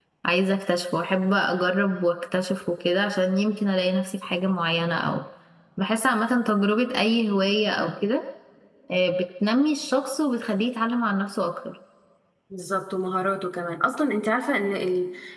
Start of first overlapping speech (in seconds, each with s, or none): none